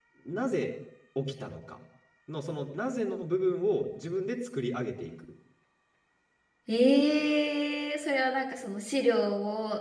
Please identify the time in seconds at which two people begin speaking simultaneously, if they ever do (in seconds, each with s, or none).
none